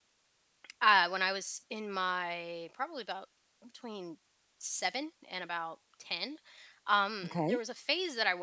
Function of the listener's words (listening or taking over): listening